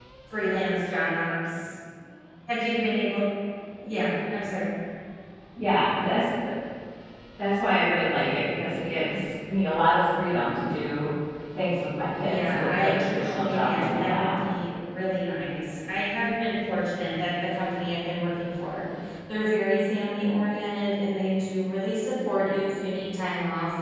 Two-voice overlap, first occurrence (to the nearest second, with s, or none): 12 s